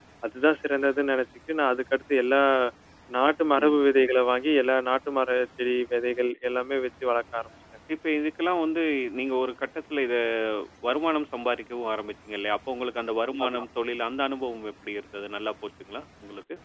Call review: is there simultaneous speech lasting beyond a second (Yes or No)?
No